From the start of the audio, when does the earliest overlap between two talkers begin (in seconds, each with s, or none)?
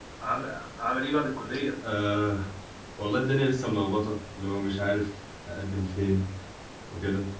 none